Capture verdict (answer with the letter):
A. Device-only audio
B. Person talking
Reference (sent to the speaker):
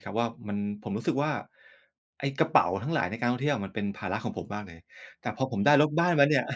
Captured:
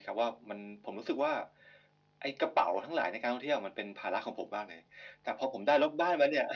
A